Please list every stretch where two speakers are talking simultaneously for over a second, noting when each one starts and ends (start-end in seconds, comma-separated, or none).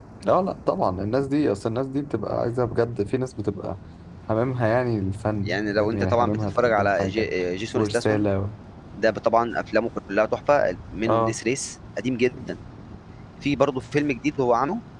5.4-7.3